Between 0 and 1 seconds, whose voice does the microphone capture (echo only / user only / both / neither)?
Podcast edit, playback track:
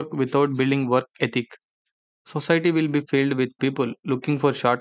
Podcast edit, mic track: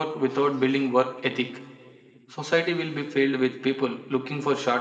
echo only